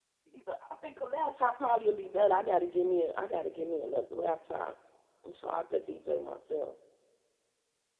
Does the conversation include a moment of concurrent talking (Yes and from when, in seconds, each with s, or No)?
No